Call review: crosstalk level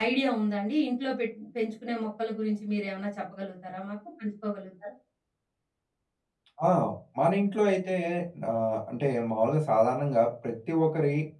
none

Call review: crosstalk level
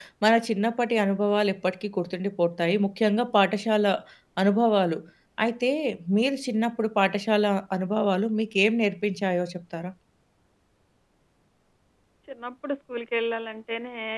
none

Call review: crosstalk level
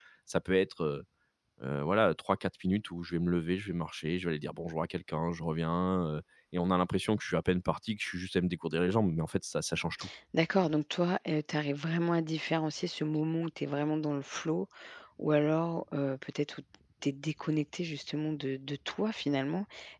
none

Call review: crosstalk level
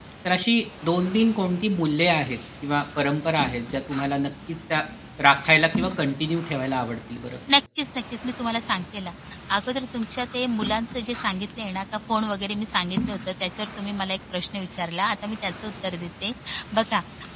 none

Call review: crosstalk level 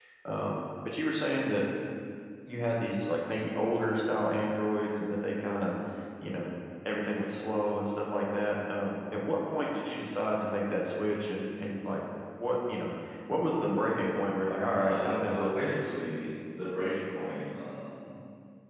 present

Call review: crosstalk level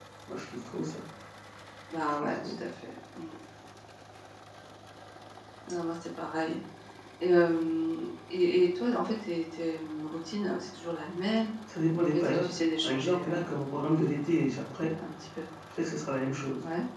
present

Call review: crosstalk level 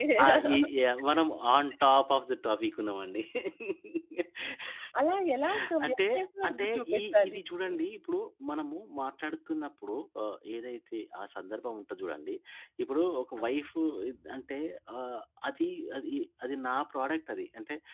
present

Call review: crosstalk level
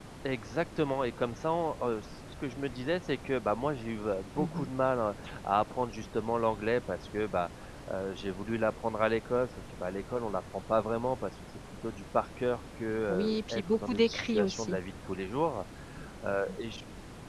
present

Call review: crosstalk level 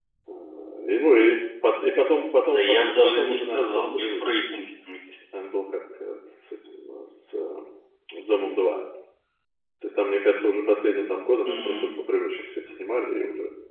present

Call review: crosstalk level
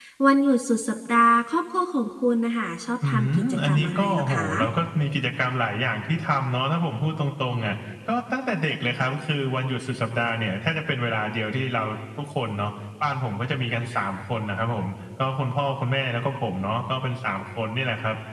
present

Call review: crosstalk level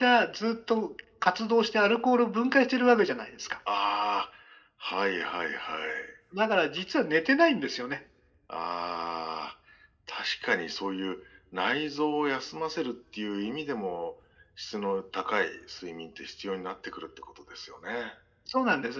none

